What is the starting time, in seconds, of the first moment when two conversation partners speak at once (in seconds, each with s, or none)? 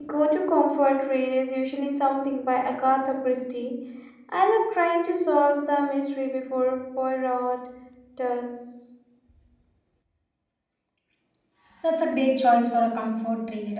none